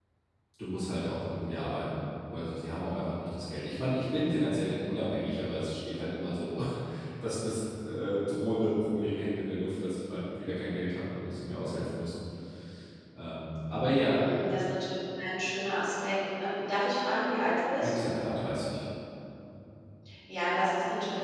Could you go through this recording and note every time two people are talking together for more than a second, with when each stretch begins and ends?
none

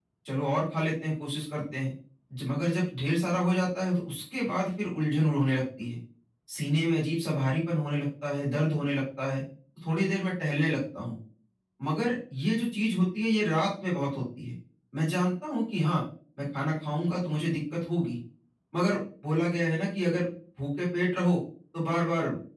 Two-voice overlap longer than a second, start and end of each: none

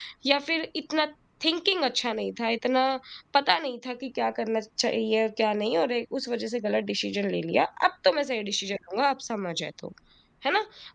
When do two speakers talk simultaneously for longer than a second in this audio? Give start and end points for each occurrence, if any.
none

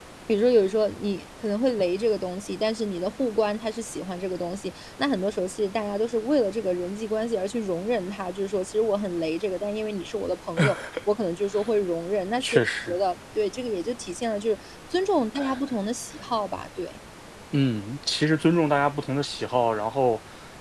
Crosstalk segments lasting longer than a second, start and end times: none

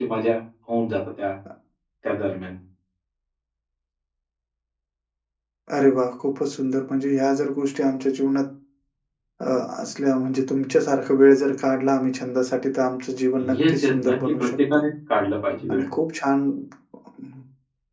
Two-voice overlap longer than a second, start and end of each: 13.4-14.8

